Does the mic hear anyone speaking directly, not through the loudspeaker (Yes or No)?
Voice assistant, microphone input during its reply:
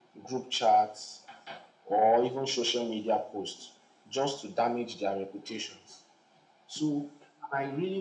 No